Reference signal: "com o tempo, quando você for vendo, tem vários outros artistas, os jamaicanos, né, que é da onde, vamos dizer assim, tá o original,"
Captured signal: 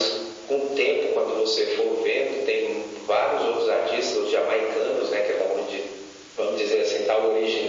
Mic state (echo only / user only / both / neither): echo only